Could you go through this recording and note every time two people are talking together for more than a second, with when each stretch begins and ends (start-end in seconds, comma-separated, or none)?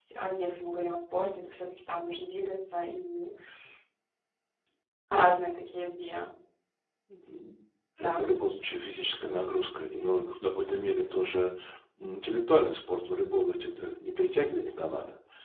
none